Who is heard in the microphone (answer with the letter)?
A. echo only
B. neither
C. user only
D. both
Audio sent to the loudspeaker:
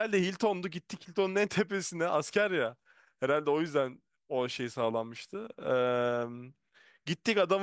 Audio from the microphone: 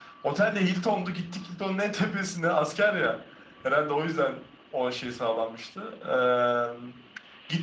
A